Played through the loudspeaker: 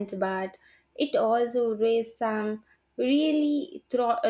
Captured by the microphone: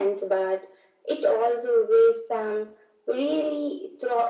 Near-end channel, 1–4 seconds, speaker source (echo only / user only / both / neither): echo only